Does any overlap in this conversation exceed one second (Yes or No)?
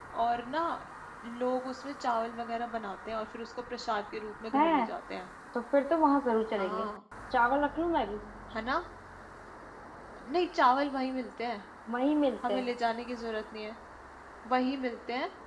No